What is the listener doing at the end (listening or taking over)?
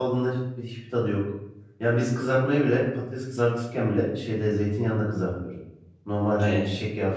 listening